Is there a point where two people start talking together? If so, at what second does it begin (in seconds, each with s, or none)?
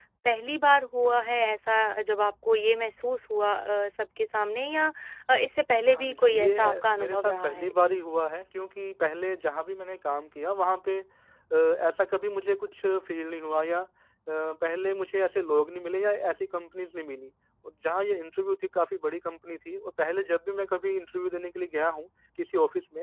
5.9 s